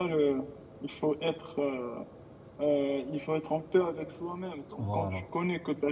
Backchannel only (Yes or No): Yes